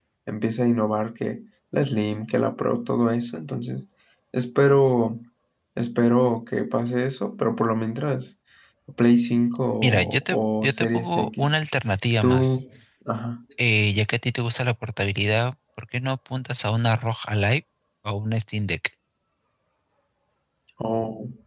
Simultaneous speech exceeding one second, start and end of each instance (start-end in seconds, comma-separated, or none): 9.8-11.6